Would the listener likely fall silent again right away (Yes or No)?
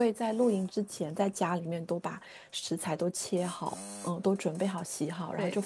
Yes